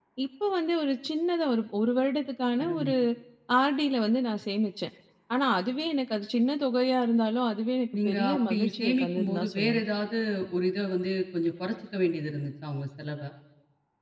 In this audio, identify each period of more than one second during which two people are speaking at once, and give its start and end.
8.0-9.8

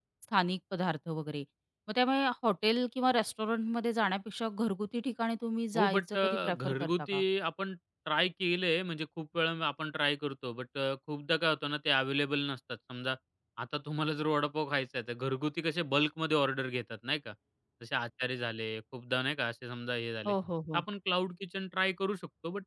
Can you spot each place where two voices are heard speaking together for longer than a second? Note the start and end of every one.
5.8-7.2

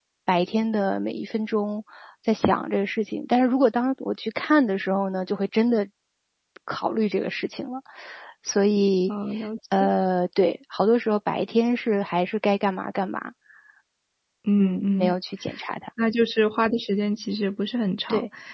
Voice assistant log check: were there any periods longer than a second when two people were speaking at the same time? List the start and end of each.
none

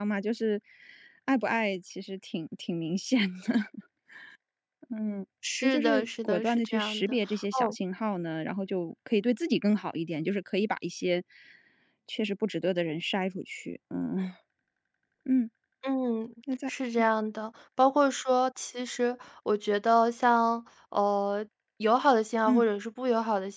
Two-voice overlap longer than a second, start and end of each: 5.6-7.8

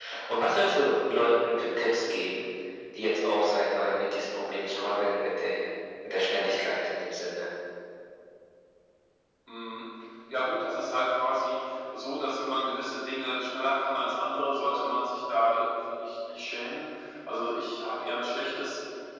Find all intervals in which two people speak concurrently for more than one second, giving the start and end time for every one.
none

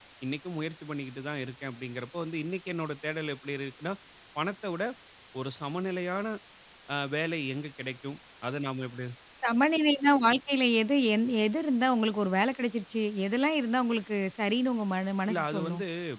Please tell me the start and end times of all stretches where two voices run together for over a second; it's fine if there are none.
none

